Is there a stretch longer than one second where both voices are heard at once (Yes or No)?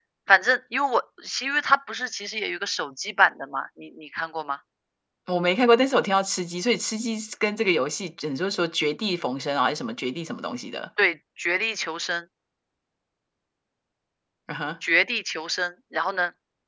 No